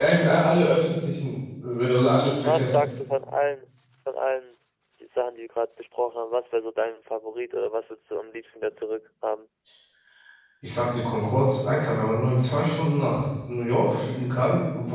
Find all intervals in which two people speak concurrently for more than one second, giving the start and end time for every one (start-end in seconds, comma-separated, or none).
none